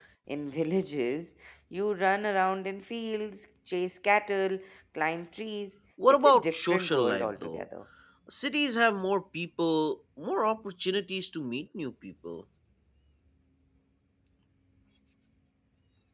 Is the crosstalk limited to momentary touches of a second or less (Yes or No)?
No